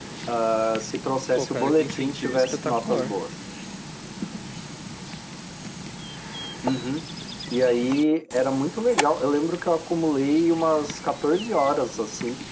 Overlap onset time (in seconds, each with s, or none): 1.4 s